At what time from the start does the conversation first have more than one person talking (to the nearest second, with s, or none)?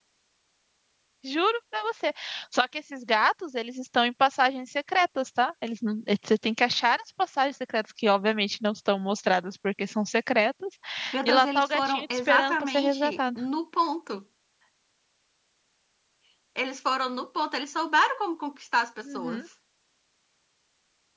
11 s